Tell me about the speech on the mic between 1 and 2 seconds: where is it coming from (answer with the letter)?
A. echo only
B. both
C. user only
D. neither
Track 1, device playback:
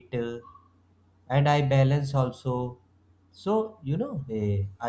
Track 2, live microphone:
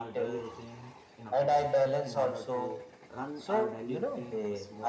B